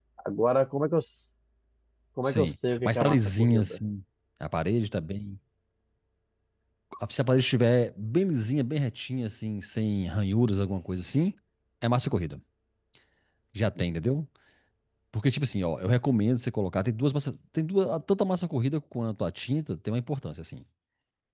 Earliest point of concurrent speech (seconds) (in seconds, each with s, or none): 2.2 s